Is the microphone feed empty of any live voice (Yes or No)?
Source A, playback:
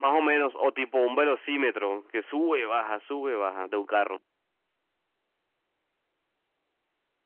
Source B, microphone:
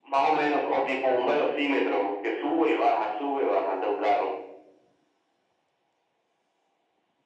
Yes